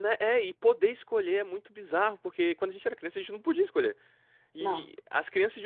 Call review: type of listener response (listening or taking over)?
listening